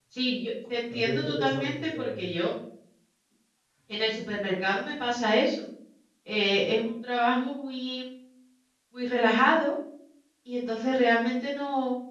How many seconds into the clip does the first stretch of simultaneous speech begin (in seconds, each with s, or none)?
0.9 s